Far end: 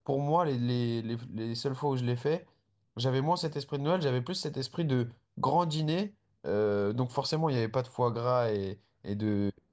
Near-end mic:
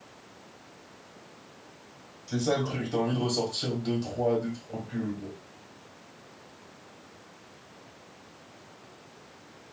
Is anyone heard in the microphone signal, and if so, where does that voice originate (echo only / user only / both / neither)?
user only